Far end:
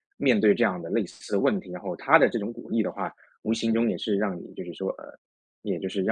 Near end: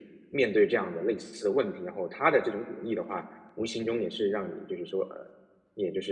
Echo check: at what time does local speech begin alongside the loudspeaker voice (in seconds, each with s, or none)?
none